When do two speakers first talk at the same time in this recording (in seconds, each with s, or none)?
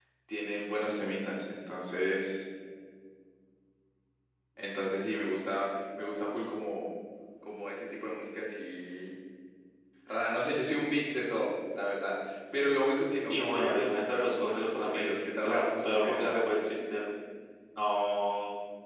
13.3 s